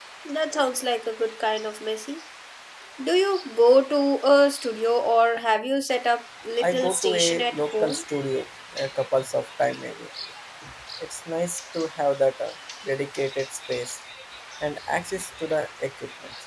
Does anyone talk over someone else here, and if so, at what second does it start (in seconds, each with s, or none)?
6.6 s